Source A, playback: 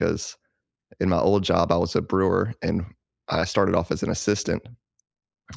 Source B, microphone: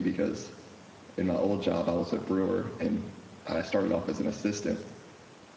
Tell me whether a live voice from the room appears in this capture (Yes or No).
No